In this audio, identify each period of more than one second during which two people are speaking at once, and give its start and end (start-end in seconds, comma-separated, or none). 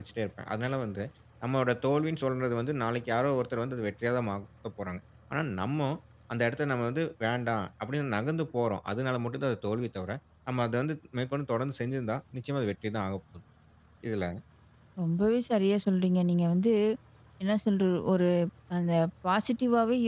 none